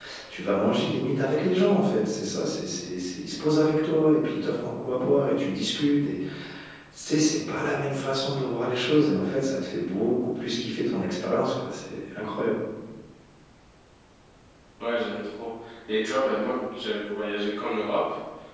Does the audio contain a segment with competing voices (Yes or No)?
No